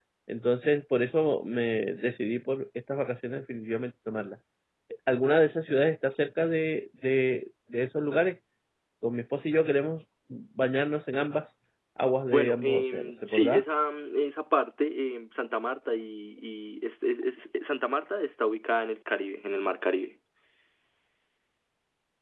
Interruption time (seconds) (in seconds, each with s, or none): 12.2 s